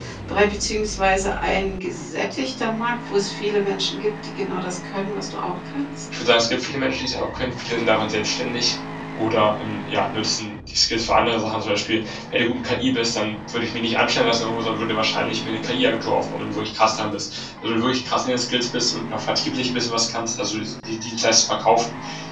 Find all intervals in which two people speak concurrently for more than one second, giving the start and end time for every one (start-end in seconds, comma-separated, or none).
none